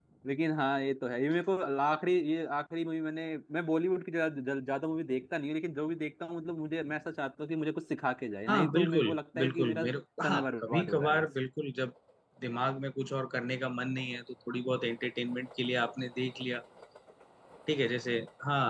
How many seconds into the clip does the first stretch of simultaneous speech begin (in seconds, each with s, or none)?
8.5 s